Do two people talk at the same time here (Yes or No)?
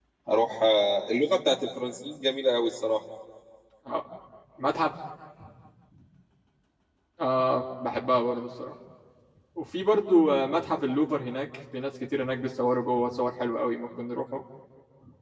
No